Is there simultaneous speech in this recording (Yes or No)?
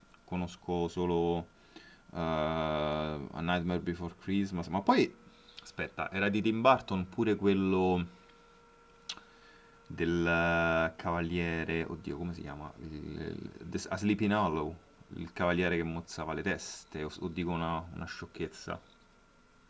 No